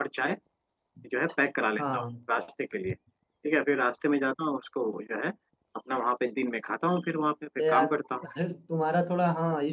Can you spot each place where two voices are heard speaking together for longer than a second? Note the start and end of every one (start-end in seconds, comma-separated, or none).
none